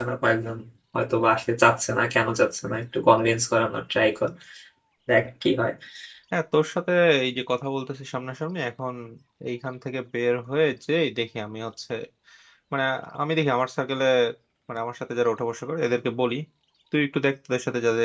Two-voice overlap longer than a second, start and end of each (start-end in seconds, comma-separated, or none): none